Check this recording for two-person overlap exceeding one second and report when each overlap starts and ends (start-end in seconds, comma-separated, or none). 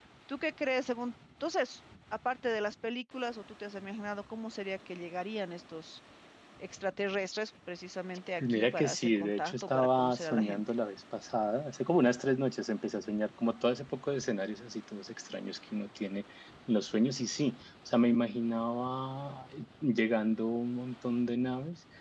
8.4-10.6